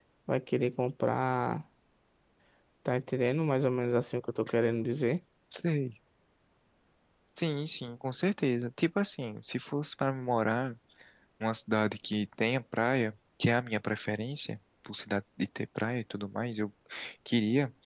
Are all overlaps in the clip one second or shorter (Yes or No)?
Yes